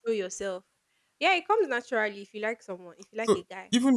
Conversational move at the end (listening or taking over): taking over